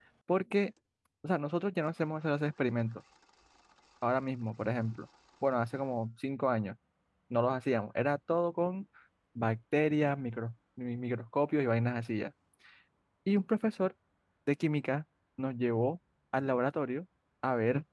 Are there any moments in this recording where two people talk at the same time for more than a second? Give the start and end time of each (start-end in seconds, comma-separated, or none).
none